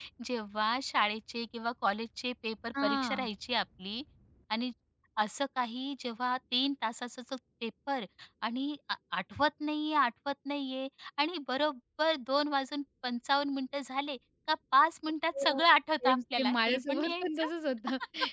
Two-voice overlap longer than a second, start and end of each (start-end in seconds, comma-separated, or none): 16.1-17.5